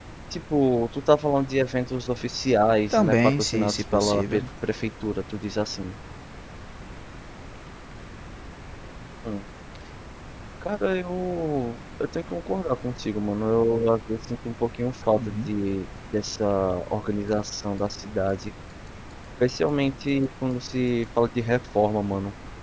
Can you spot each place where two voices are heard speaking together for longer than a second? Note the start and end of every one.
2.9-4.4

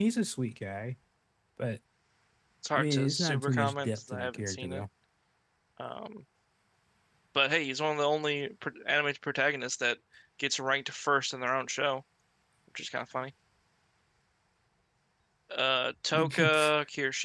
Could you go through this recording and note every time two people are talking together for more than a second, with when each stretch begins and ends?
2.7-4.7

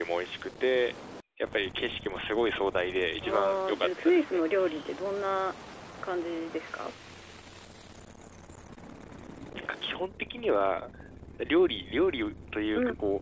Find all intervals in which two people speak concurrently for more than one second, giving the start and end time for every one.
3.2-4.4

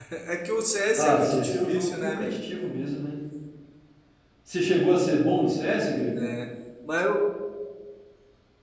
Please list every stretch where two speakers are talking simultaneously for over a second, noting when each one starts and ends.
1.0-2.3

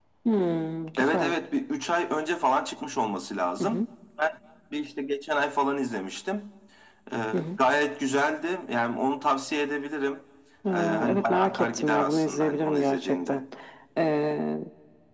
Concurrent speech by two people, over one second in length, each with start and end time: 10.7-13.4

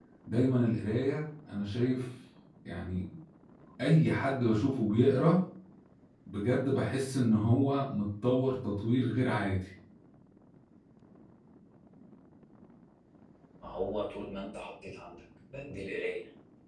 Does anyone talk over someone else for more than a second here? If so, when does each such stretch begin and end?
none

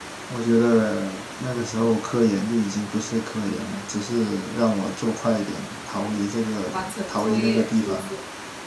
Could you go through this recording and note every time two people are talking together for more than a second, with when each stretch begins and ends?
6.7-8.1

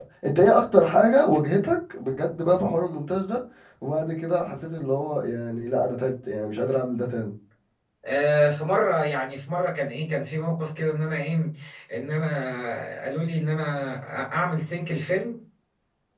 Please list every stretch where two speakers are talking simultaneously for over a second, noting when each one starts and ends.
none

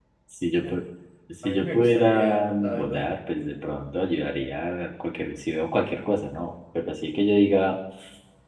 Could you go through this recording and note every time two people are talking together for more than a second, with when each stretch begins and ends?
1.4-3.2

